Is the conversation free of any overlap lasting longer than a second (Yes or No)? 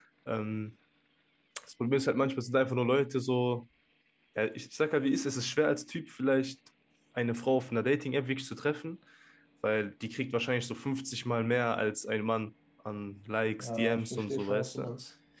No